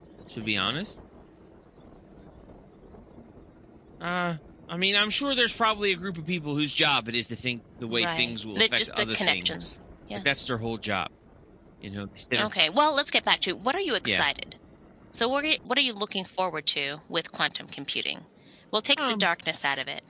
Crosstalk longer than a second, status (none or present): present